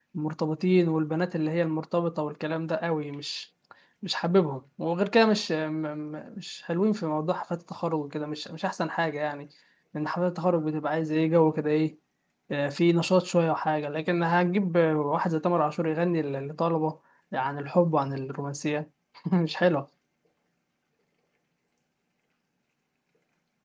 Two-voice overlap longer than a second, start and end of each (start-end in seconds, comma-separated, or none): none